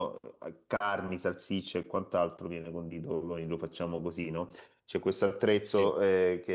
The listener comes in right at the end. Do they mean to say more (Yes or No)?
No